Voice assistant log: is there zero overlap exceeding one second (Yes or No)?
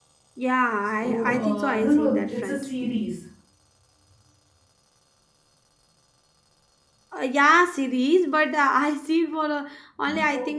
No